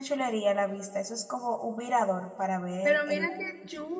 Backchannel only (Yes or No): No